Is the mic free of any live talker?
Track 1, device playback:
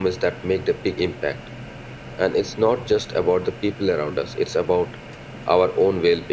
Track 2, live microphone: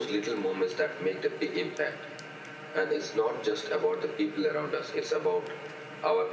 Yes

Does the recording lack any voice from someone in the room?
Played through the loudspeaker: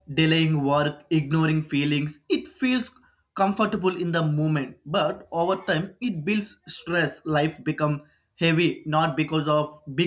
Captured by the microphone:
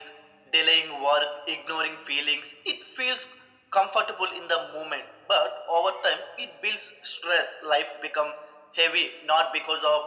Yes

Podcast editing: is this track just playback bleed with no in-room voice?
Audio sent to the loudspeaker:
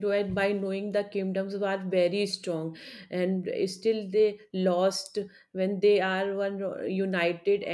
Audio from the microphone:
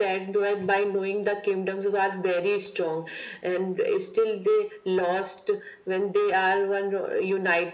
Yes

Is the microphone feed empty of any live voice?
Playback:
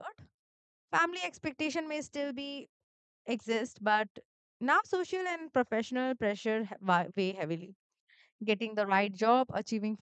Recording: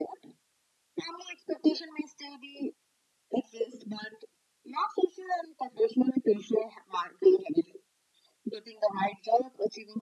Yes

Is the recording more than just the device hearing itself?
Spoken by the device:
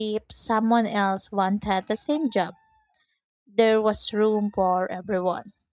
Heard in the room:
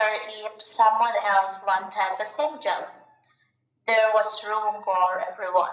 No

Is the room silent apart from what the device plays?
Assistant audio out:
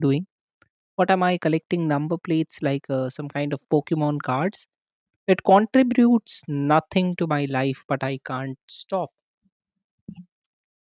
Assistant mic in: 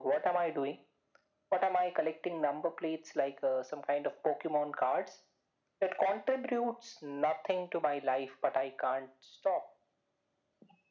Yes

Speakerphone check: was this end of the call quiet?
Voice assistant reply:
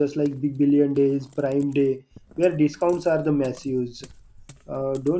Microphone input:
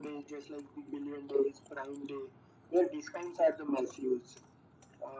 Yes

